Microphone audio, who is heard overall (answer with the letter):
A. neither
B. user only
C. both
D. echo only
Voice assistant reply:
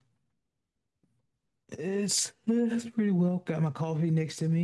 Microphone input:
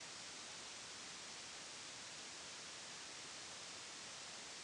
A